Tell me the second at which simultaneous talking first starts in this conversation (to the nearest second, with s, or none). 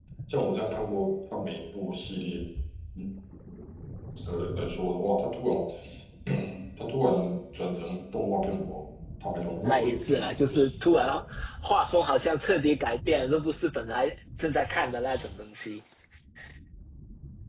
10 s